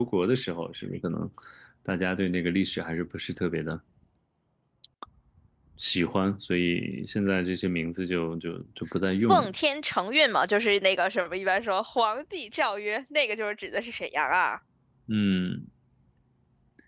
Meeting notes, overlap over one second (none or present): none